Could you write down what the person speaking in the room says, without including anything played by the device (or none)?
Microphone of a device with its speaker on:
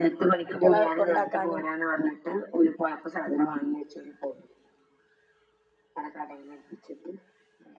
കുട്ടള കൊണ്ടാക്കാനും